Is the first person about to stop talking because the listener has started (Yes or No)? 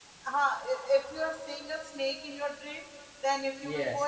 No